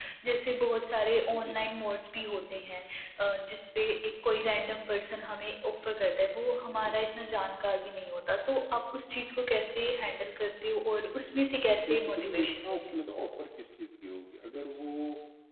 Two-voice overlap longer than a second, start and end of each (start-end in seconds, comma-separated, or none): 11.8-13.0